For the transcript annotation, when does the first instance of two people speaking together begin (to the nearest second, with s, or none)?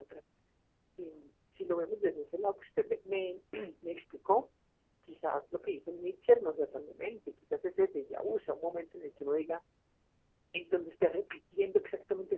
none